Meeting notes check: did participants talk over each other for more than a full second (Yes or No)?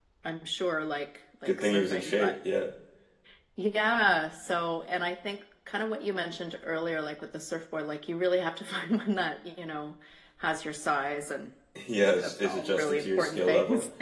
Yes